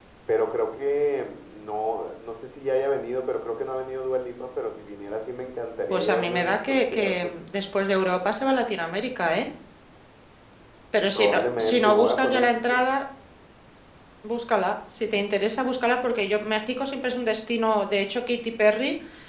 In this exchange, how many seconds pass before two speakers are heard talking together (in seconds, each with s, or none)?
5.9 s